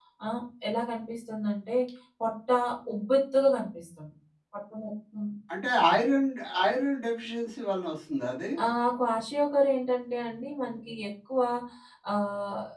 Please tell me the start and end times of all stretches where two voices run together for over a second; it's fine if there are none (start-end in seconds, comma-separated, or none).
none